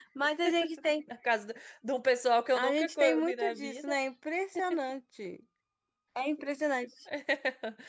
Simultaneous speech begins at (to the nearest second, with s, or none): 3 s